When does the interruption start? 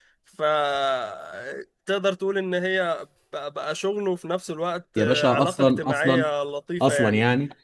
5 s

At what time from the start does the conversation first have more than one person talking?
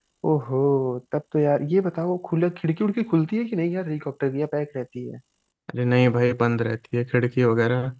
none

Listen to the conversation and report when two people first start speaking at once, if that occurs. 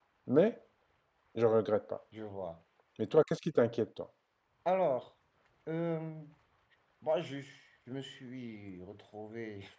none

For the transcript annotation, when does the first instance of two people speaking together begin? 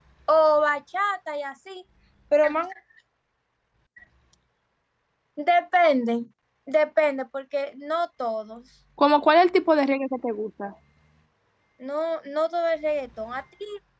none

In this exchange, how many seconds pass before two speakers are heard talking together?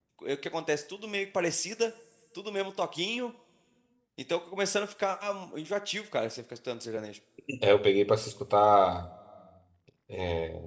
none

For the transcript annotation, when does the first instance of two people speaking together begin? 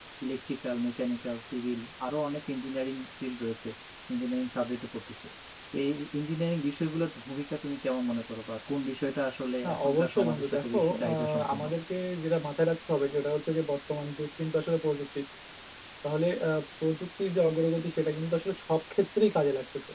10 s

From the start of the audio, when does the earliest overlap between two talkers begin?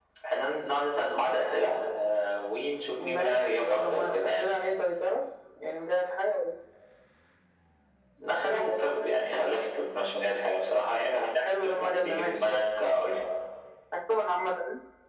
3 s

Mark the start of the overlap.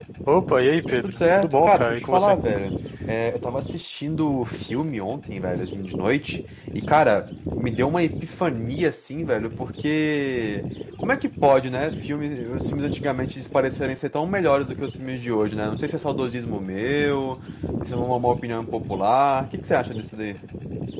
1 s

